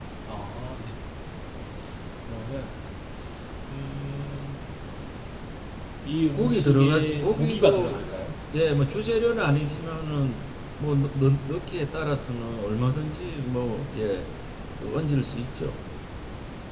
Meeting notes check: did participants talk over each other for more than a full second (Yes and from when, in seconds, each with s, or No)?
Yes, from 6.3 s